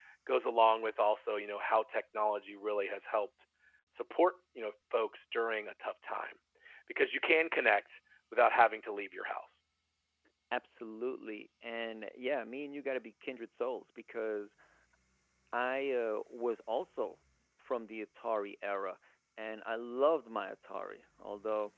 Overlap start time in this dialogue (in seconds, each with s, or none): none